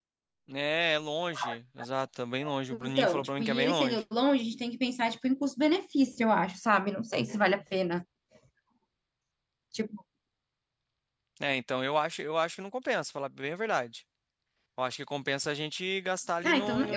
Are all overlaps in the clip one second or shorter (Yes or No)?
No